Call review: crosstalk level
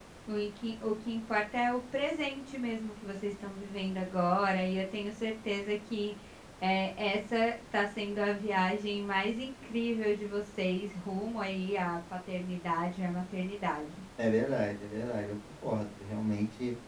none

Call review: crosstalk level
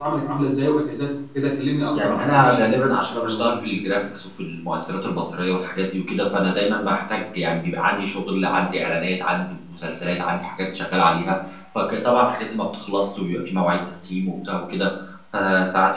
present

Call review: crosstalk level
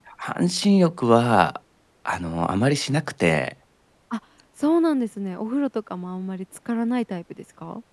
none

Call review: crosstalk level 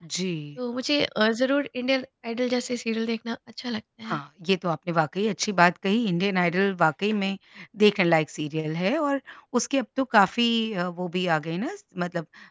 none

